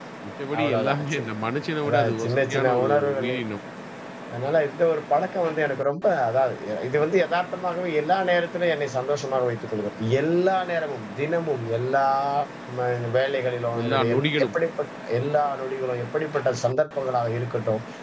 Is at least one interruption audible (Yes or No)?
Yes